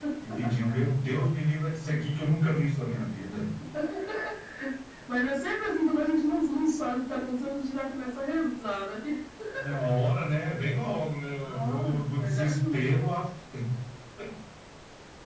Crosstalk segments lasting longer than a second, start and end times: 11.4-12.8

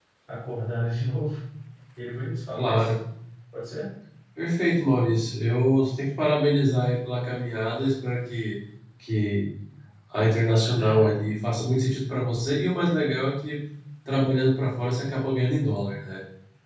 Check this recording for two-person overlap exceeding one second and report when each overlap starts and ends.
none

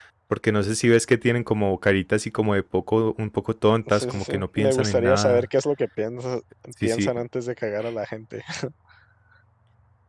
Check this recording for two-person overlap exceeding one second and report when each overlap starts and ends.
3.9-5.5

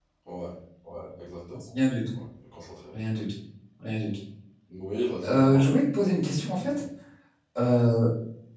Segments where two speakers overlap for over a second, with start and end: none

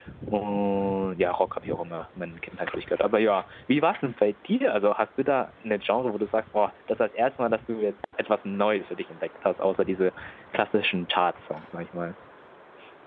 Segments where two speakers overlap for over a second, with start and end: none

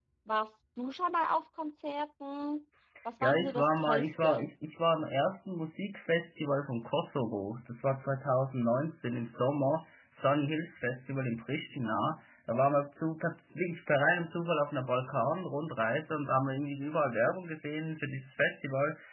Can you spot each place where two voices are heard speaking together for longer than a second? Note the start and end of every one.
3.2-4.5

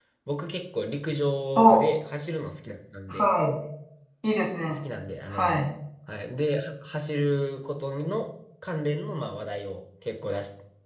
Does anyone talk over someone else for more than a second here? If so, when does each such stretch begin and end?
none

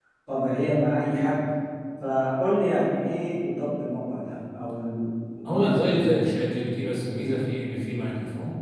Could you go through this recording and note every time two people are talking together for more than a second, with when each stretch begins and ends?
none

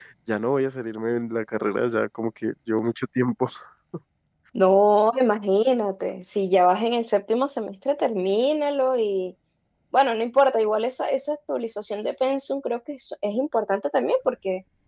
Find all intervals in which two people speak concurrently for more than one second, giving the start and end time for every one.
none

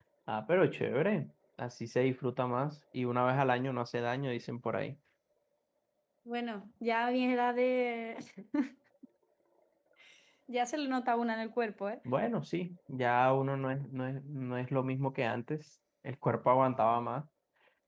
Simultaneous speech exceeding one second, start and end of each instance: none

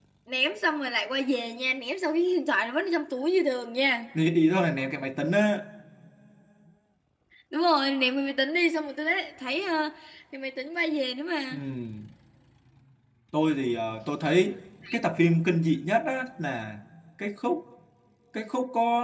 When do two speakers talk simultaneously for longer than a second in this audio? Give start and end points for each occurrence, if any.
none

